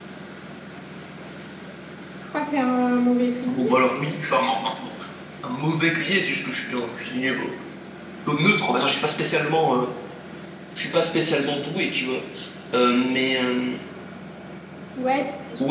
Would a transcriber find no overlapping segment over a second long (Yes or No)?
Yes